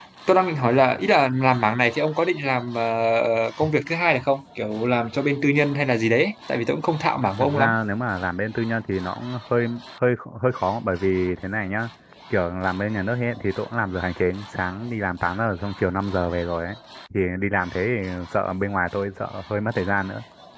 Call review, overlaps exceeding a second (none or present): none